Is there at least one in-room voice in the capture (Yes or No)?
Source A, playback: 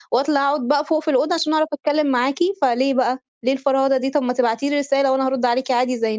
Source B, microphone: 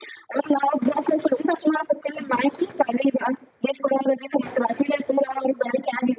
No